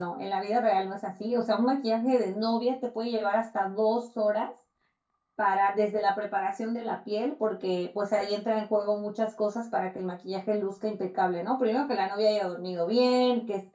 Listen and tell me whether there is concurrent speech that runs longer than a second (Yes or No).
No